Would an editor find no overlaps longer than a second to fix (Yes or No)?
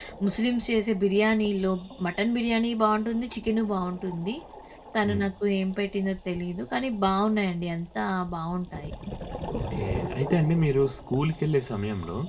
Yes